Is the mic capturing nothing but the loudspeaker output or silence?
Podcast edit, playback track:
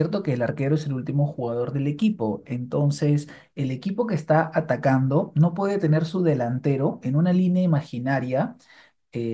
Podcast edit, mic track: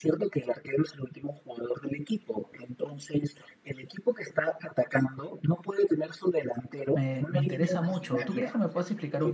No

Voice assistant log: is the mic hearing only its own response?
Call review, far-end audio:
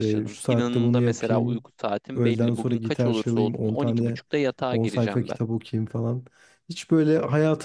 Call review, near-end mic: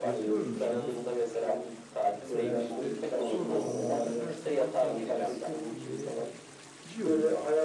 No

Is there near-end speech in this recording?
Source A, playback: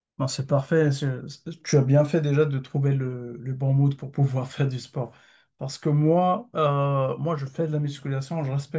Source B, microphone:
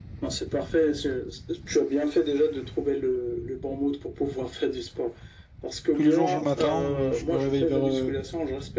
Yes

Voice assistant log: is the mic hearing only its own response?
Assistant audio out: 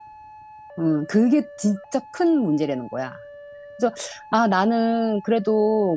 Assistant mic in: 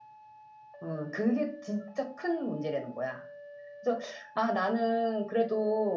Yes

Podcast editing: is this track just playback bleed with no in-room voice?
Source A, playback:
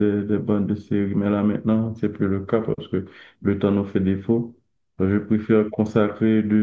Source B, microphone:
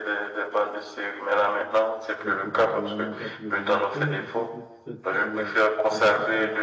No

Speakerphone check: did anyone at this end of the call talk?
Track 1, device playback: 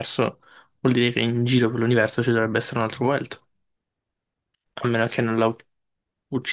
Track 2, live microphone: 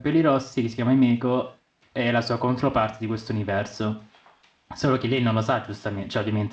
Yes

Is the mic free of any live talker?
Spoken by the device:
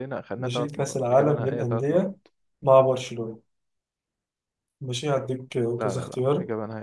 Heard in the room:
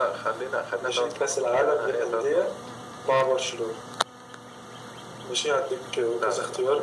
Yes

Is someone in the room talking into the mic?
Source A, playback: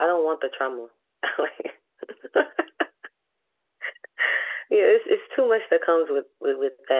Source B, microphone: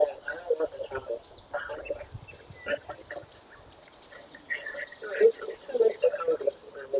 No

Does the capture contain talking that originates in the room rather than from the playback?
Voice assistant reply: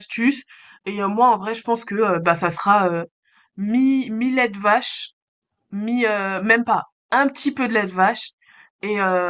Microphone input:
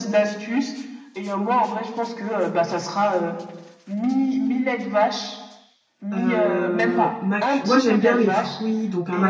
Yes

